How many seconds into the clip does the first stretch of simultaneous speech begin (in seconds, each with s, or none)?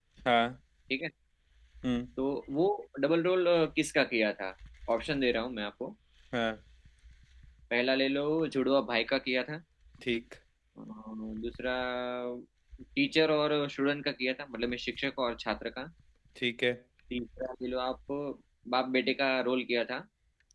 none